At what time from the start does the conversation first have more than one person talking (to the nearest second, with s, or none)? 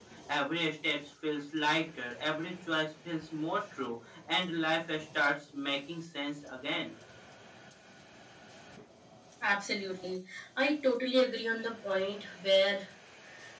none